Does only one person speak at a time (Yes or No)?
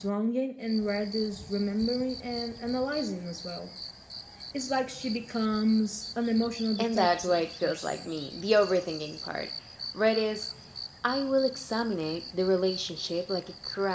No